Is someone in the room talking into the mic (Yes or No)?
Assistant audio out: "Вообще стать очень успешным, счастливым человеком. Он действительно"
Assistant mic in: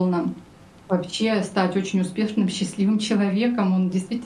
No